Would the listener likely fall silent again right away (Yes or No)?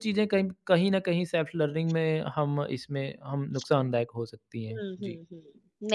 No